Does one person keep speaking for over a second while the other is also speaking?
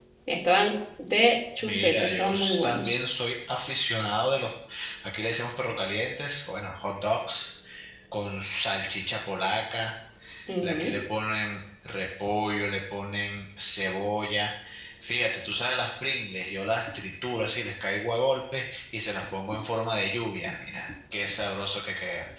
Yes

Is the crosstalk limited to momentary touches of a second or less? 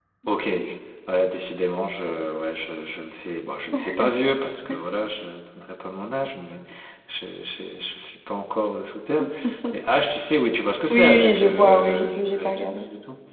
No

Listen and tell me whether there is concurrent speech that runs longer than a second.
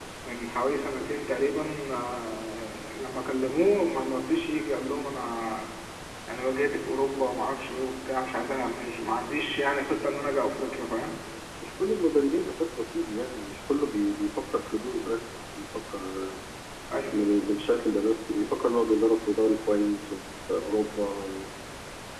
No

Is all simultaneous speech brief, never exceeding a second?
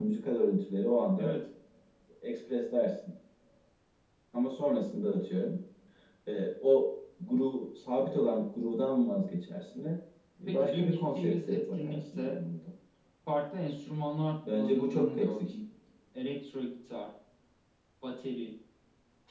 No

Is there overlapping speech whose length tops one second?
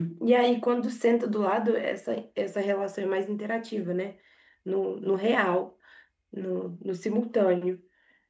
No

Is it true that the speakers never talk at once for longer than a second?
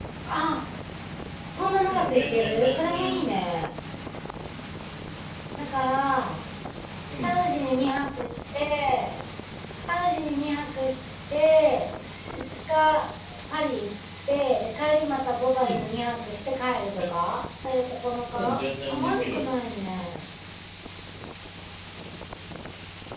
No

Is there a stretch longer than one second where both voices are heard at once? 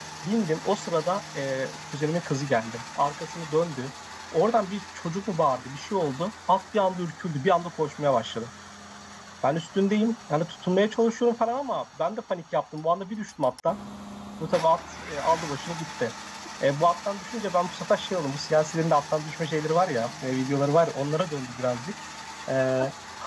No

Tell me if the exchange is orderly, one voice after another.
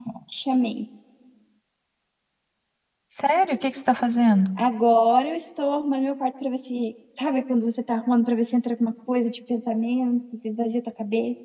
Yes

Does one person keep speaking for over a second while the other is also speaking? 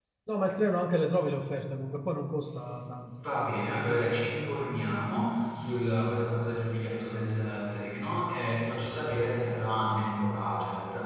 No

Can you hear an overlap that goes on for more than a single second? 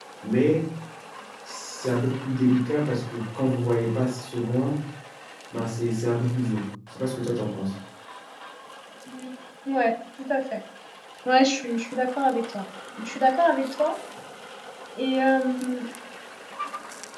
No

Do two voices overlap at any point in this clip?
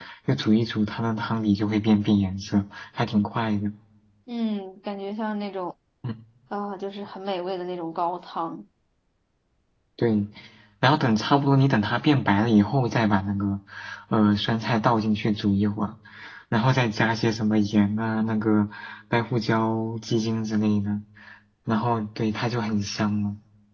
No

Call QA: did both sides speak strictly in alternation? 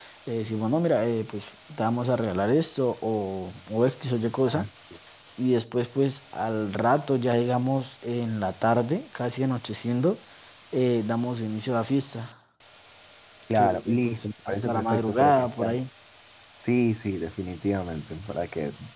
No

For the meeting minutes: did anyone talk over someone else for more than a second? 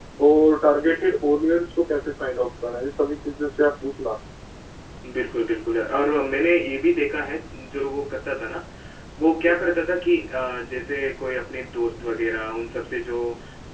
No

